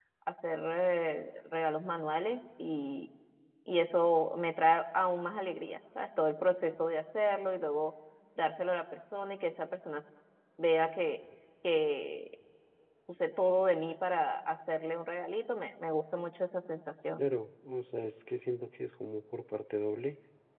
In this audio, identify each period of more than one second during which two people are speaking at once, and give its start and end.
none

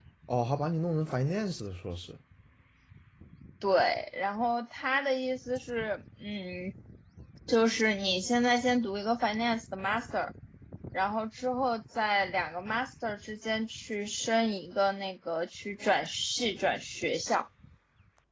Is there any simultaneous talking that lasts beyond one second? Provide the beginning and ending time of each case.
none

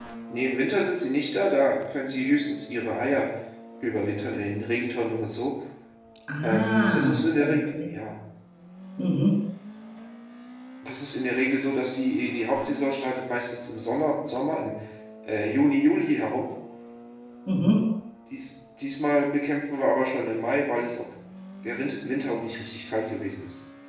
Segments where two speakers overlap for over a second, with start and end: 6.4-7.8

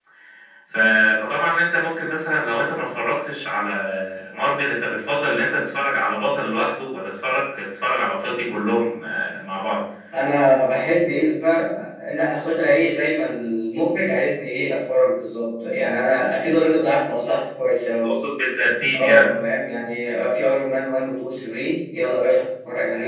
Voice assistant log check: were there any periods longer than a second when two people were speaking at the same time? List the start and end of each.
none

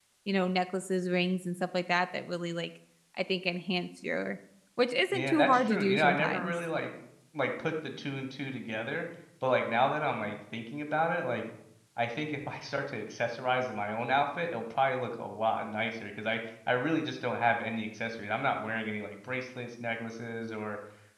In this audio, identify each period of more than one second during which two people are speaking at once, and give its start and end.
5.1-6.5

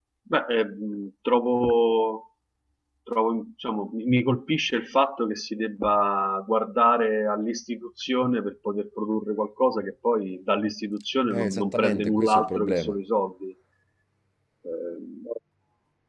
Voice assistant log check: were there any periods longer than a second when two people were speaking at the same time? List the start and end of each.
11.3-12.9

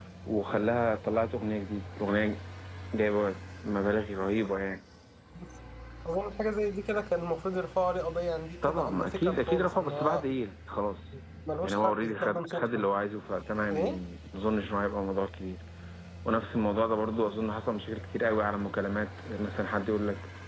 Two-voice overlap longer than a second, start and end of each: 8.6-10.3, 11.6-12.9

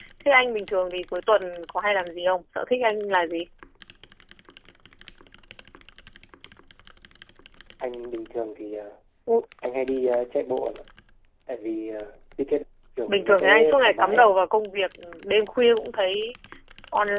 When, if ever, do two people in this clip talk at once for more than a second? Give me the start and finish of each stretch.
13.1-14.3

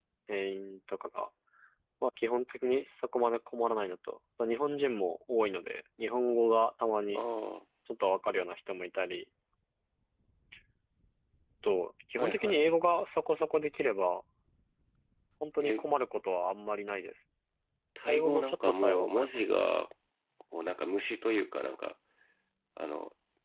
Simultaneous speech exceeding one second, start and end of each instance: 18.0-19.3

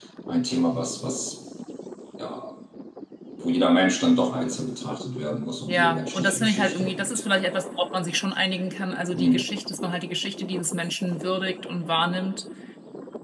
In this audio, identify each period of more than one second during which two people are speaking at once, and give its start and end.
5.7-7.1

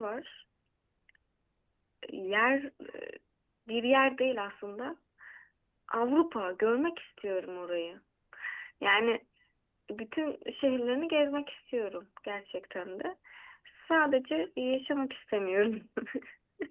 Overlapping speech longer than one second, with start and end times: none

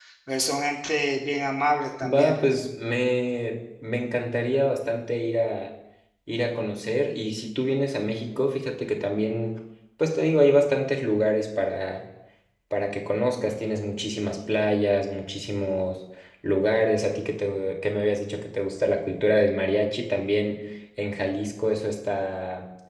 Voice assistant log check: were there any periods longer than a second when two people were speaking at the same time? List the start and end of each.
none

